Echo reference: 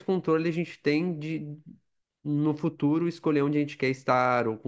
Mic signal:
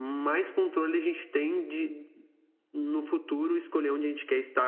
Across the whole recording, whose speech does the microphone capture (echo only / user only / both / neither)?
echo only